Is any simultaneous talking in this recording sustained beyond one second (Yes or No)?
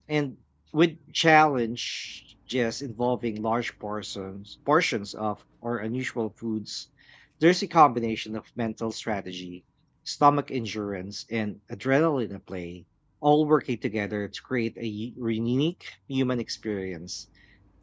No